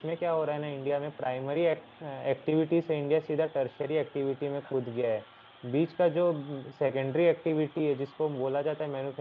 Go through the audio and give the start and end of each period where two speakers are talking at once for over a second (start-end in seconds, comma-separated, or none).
none